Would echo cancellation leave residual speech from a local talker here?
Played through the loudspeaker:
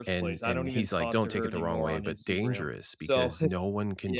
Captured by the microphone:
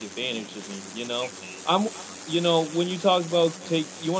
Yes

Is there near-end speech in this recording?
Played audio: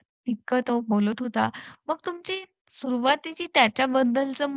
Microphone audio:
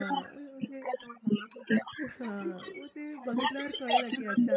Yes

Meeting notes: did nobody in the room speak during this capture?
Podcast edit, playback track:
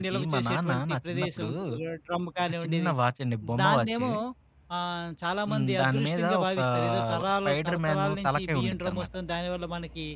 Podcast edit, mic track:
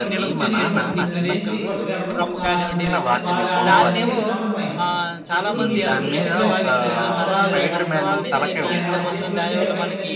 No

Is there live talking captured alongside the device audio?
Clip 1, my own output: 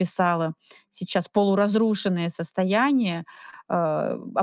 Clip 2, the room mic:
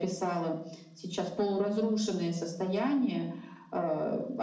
No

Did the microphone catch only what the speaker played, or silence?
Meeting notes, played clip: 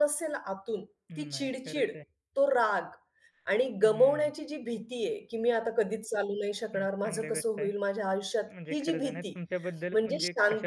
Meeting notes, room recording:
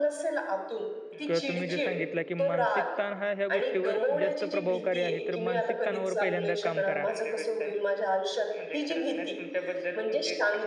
No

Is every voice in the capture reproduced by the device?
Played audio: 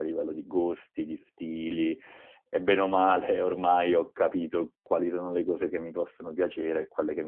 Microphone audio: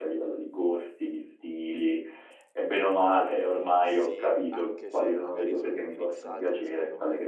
No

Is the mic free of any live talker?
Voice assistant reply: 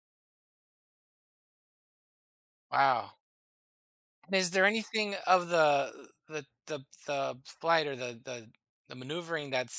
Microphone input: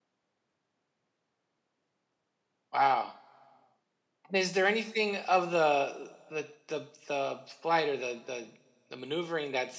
Yes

